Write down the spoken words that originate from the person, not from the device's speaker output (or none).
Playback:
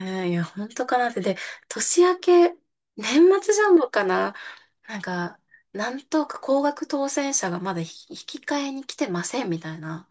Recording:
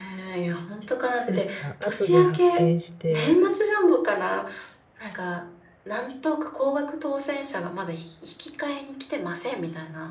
なんか、後で発見して、